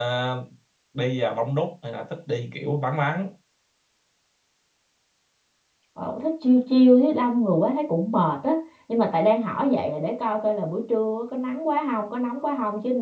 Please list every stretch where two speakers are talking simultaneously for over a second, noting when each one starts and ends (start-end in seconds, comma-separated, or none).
none